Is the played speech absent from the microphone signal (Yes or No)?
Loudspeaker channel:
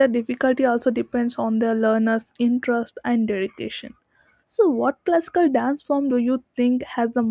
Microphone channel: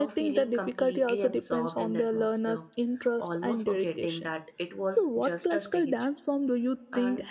No